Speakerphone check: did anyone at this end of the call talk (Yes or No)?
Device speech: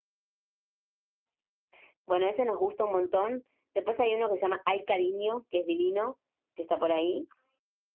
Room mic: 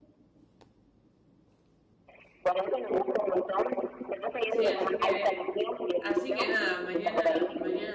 Yes